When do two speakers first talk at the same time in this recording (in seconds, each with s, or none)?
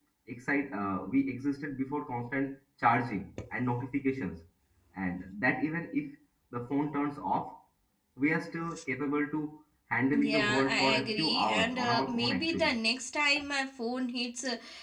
10.1 s